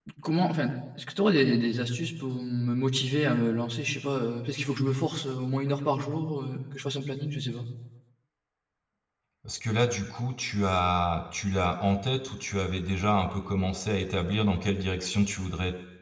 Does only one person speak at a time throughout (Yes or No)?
Yes